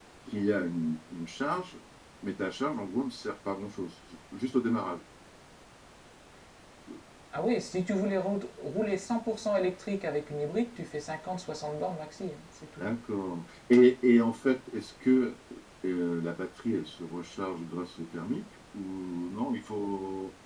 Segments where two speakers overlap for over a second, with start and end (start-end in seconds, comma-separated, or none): none